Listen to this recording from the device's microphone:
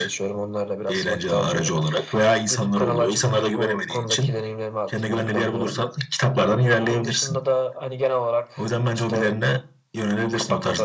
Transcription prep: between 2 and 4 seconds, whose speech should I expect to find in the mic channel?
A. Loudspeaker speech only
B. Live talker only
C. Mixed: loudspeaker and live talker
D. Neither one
A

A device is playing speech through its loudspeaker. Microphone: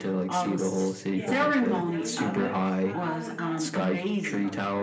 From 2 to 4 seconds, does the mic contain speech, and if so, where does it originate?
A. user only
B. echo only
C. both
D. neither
C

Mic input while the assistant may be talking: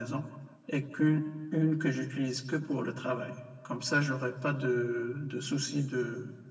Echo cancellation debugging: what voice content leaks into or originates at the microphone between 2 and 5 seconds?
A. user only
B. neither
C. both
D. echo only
D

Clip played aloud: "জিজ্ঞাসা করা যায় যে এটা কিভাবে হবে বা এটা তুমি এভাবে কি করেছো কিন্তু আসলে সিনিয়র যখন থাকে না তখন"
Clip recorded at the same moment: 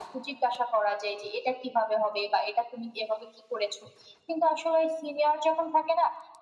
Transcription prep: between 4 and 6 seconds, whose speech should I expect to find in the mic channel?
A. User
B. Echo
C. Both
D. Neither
B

